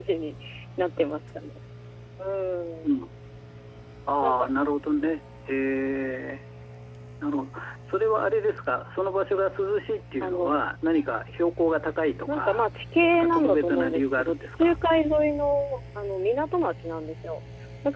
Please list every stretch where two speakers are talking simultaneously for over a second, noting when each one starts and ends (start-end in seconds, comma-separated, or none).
13.1-14.8